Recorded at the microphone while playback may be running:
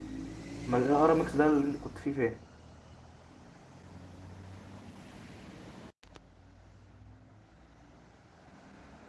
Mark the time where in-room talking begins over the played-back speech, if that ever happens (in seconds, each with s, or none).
0.7 s